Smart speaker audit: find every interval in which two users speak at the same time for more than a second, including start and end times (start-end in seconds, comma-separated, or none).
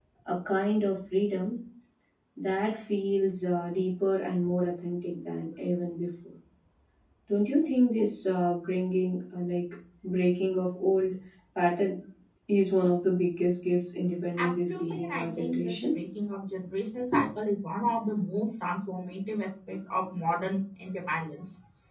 14.4-15.8